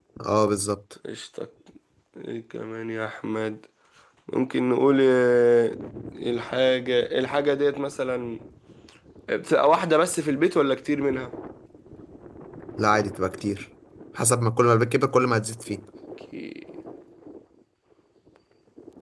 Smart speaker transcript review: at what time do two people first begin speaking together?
none

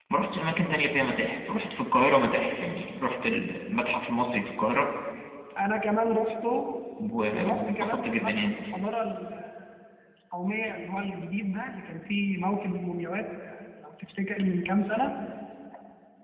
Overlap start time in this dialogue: 7.3 s

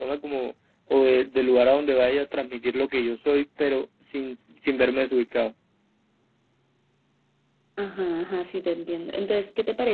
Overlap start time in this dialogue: none

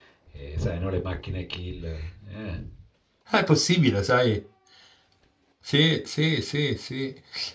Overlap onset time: none

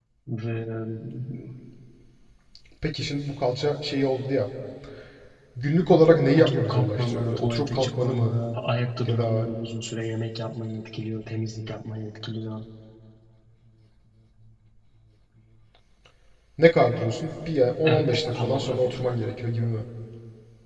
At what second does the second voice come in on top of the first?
6.3 s

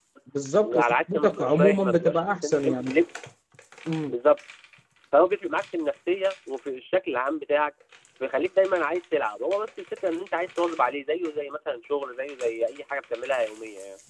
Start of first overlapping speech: 0.6 s

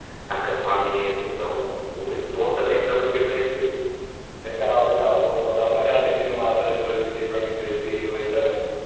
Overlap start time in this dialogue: none

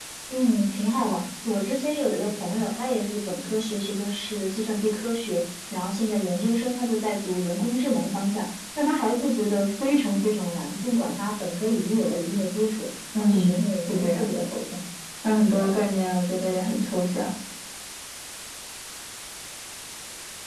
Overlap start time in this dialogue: 13.1 s

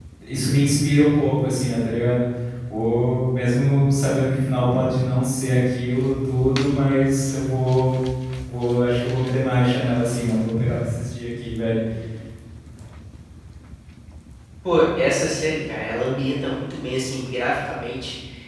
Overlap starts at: none

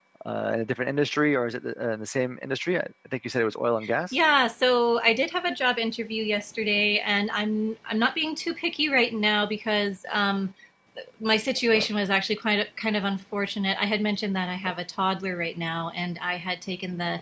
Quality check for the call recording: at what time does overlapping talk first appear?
none

